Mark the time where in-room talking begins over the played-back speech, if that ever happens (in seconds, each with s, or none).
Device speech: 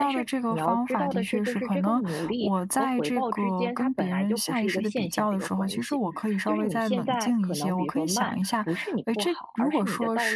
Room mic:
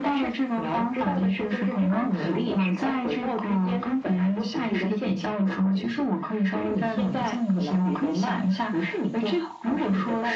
1.9 s